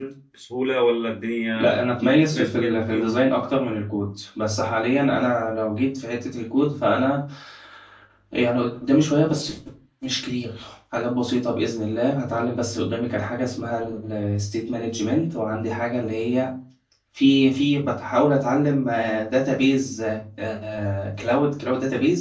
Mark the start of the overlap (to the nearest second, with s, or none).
2 s